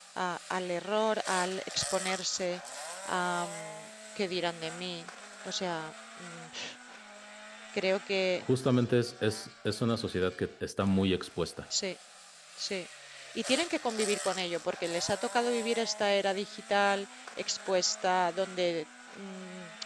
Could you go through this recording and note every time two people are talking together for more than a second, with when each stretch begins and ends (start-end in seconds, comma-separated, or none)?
none